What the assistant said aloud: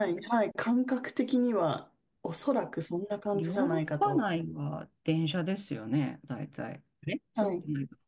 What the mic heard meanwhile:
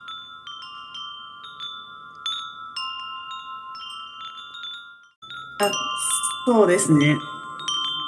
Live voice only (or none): あ、そうですね。